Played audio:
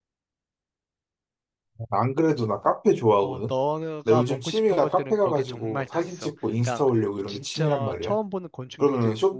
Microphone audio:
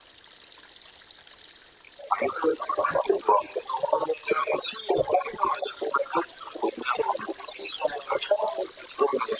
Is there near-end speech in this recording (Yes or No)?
No